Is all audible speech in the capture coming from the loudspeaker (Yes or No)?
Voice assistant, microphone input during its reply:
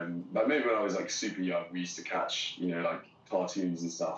Yes